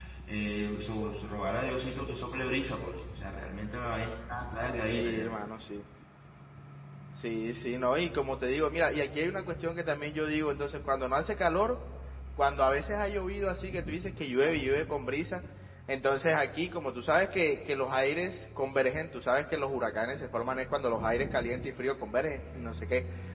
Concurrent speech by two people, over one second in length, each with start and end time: none

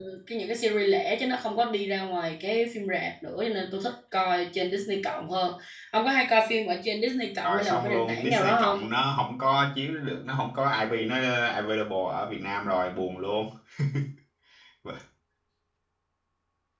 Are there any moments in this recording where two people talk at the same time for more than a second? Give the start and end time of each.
7.4-8.8

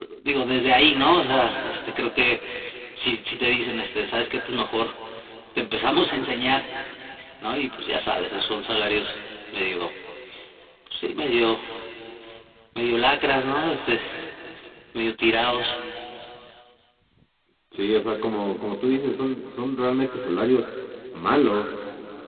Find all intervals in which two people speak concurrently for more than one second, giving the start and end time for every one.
none

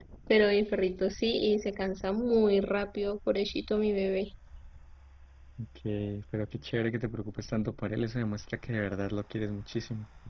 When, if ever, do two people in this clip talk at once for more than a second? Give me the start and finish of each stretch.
none

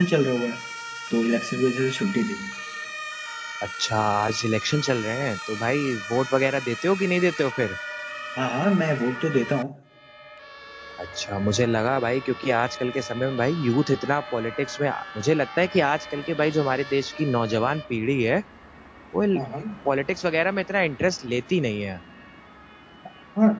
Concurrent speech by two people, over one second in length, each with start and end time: none

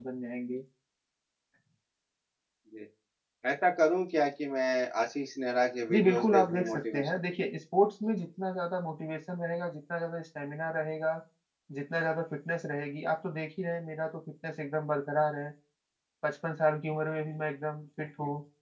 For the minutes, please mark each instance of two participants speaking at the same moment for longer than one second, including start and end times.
5.9-7.4

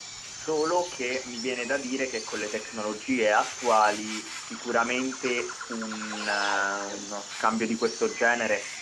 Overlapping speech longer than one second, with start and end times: none

